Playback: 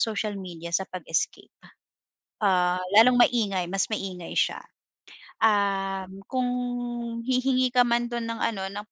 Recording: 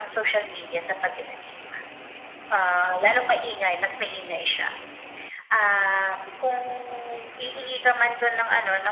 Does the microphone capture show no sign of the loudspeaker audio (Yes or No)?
No